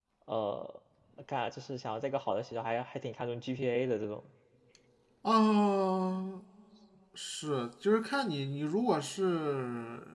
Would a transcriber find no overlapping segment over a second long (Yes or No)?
Yes